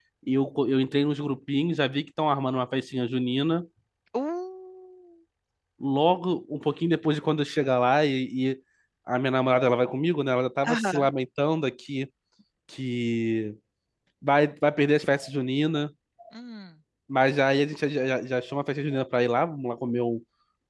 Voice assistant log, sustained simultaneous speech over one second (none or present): none